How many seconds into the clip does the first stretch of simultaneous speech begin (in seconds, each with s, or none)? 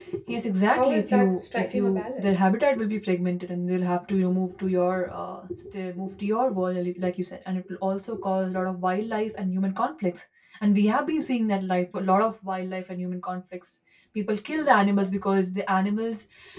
0.7 s